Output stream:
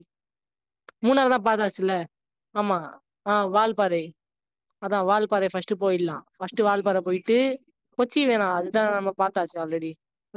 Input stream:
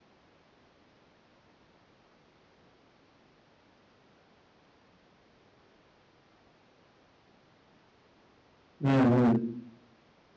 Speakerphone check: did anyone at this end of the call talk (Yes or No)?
Yes